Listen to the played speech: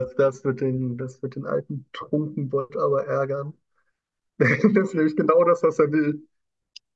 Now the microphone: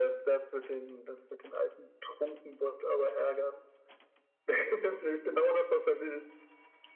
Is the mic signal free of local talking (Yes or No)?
Yes